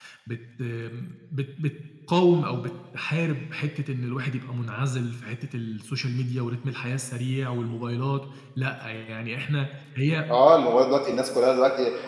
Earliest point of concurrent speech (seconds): none

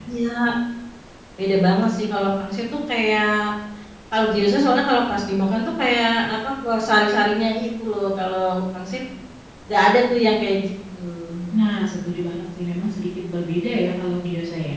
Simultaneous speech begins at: none

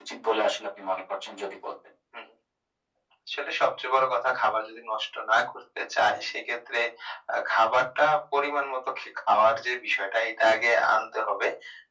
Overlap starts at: none

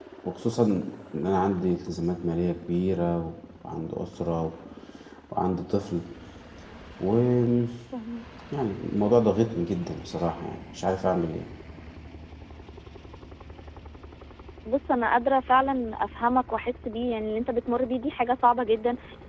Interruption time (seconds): none

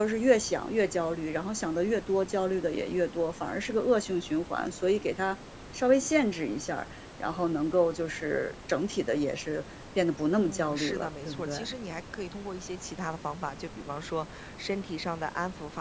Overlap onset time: 10 s

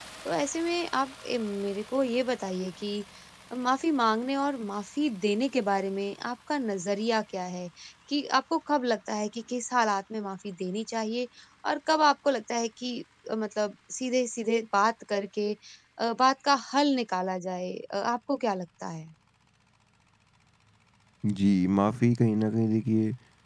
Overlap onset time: none

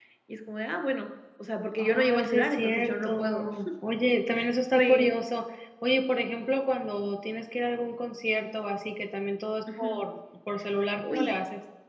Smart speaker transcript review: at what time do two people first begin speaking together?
2 s

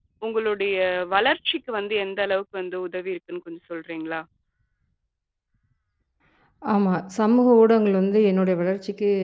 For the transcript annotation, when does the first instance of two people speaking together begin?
none

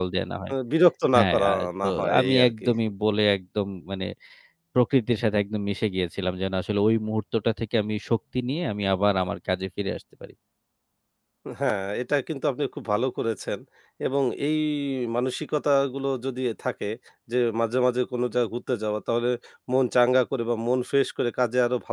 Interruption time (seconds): 1 s

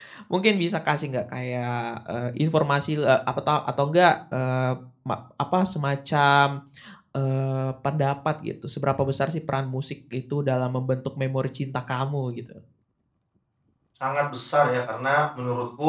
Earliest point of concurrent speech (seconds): none

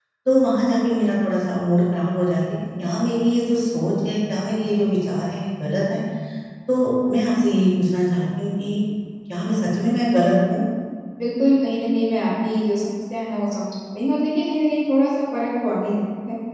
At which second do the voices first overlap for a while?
none

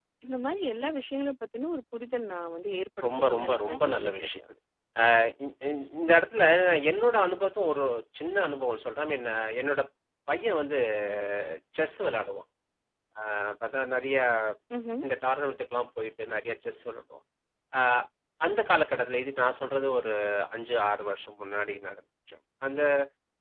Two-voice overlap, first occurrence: 3 s

